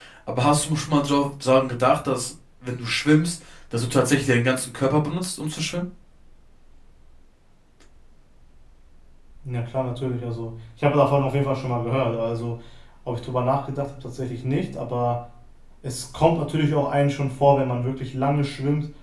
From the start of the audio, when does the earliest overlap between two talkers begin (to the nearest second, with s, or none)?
none